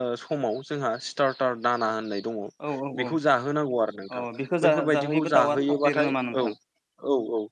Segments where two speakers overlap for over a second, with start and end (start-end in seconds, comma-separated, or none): 4.7-6.5